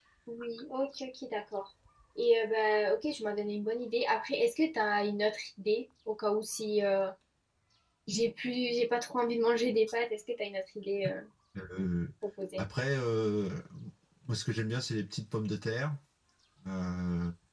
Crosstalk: none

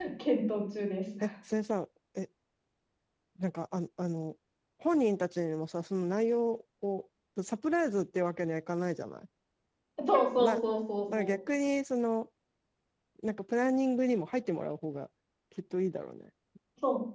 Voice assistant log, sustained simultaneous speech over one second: none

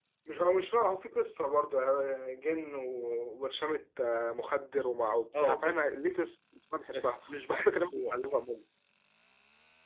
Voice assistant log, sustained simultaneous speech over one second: present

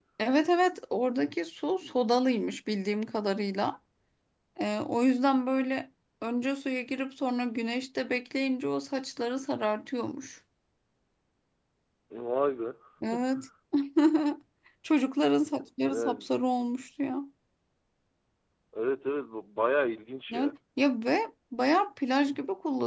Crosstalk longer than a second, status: none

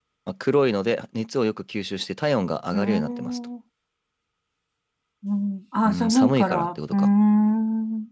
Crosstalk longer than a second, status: present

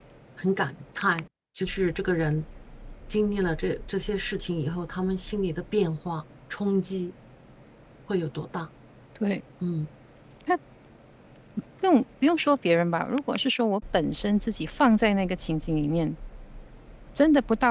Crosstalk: none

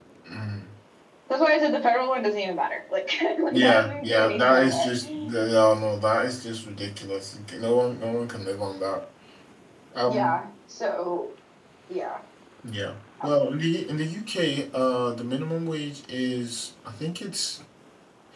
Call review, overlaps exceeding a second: present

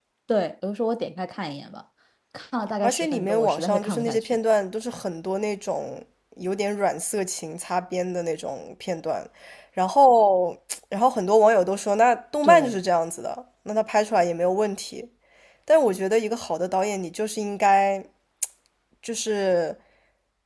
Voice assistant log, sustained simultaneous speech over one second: present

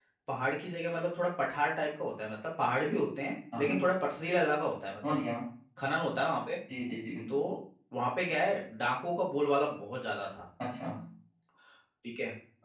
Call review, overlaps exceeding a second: none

